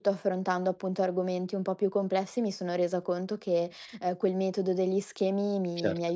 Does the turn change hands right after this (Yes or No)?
No